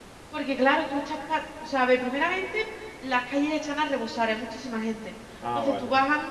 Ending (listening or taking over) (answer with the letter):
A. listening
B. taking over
A